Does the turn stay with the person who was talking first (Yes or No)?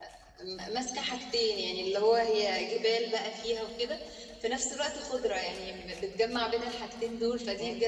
No